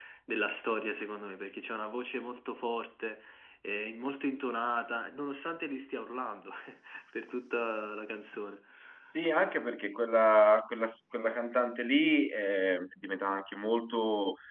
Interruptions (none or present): none